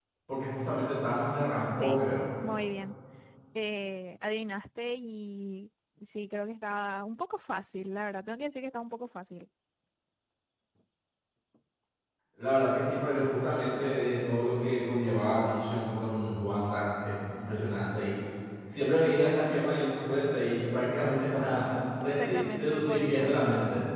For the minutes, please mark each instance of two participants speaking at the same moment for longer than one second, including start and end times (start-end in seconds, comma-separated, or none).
22.0-23.4